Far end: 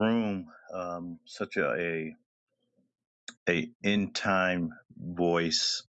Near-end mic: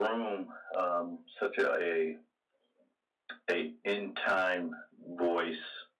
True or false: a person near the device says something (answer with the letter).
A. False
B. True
A